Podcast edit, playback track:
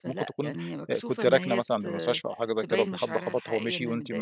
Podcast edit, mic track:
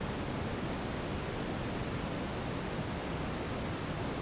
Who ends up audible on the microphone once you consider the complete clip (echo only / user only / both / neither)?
neither